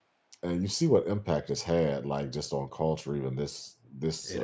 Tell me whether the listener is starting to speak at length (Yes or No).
No